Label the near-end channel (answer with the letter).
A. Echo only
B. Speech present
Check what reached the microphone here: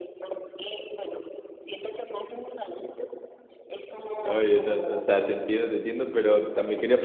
B